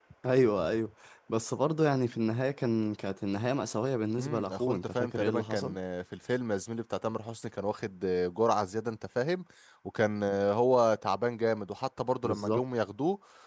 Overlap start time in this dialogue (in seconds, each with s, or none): 4.2 s